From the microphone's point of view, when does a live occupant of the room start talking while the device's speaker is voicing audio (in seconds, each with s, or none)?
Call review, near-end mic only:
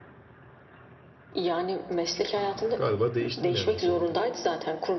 2.8 s